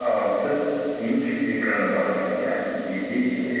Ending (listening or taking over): listening